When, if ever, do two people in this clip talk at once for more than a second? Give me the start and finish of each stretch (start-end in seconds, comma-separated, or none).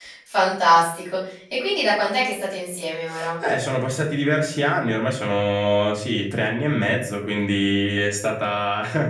none